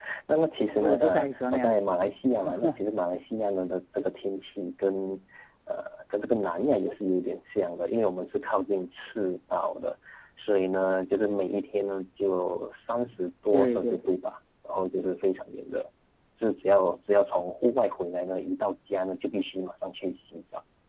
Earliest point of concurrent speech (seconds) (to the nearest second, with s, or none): 1 s